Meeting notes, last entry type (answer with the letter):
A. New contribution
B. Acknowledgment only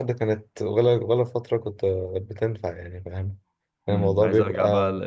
A